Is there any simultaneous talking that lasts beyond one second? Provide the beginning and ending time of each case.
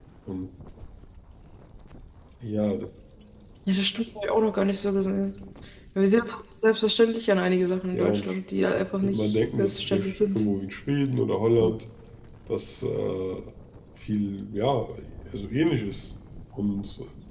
9.0-10.4

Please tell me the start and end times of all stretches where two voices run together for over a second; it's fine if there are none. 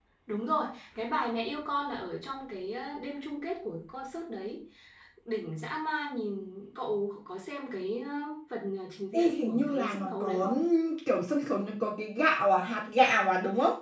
9.1-10.7

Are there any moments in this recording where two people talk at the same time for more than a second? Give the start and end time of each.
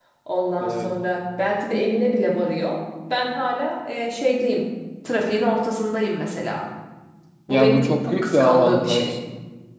7.5-9.2

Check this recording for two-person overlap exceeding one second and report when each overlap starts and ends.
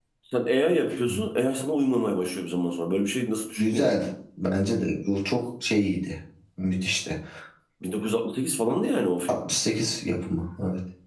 none

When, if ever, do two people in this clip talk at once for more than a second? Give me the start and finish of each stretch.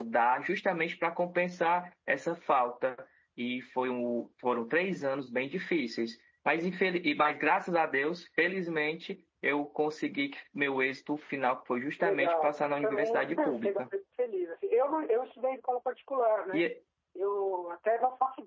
12.0-13.8

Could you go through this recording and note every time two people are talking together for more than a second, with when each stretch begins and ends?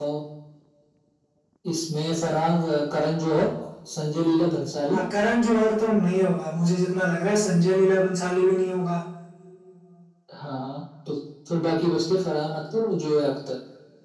none

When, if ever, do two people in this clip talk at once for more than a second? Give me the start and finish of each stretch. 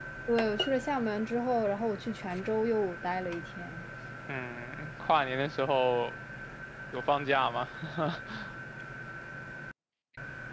none

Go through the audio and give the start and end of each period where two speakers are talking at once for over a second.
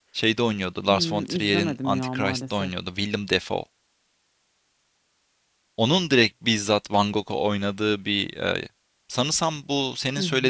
0.9-2.7

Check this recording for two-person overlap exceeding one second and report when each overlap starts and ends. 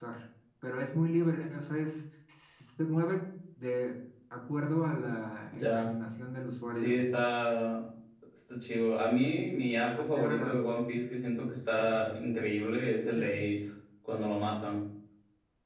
none

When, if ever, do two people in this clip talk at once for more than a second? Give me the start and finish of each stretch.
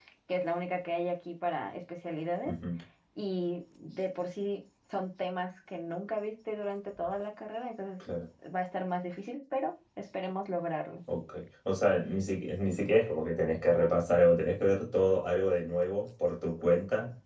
none

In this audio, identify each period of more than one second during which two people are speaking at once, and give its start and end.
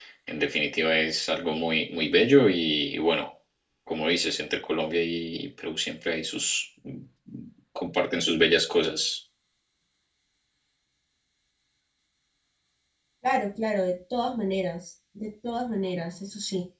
none

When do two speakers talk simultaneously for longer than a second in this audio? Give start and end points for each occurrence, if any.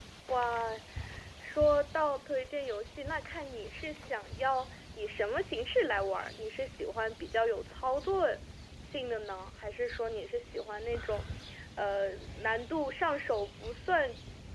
none

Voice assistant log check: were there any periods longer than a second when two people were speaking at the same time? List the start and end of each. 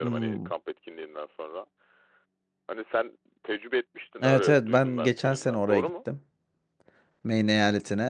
4.2-5.9

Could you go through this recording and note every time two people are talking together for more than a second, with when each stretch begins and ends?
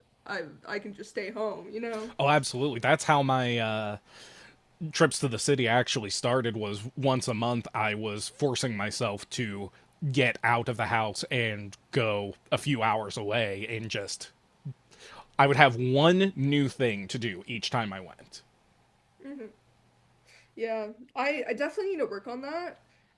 none

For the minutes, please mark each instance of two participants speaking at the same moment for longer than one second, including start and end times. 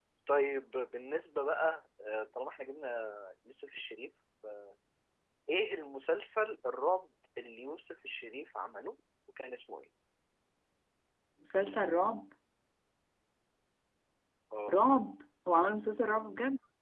none

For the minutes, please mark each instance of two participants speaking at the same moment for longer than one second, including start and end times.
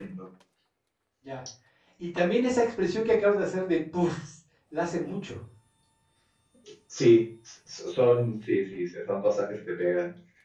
none

